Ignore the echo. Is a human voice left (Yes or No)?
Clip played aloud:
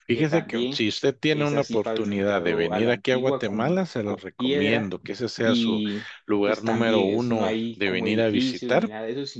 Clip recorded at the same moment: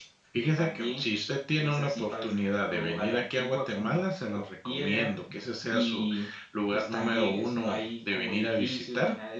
No